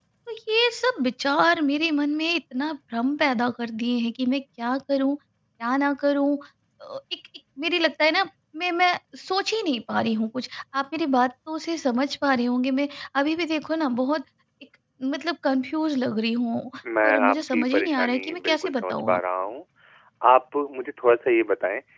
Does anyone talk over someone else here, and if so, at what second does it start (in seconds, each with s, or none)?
16.8 s